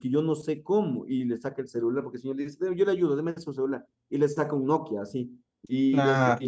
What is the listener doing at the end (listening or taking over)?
listening